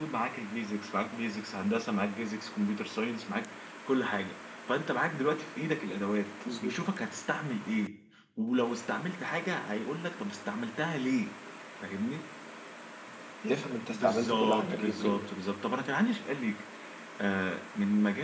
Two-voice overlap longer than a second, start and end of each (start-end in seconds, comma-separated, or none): 13.9-15.2